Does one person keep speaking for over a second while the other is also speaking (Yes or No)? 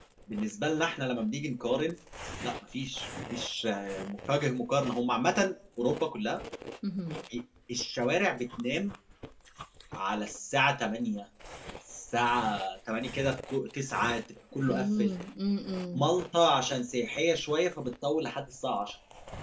No